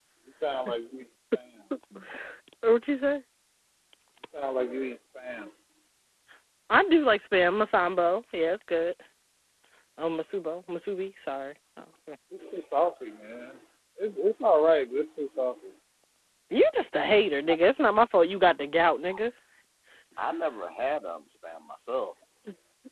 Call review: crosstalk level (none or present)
none